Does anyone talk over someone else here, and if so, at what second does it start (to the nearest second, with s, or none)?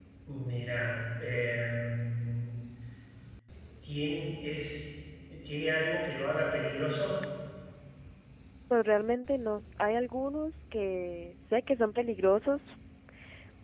none